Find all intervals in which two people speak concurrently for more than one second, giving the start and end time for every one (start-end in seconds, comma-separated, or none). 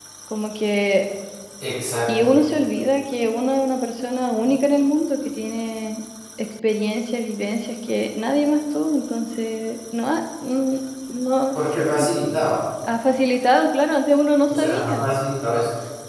none